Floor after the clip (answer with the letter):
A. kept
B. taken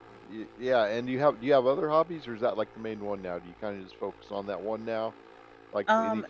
A